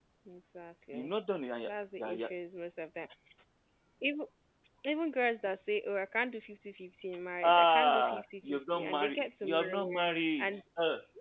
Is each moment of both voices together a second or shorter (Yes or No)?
No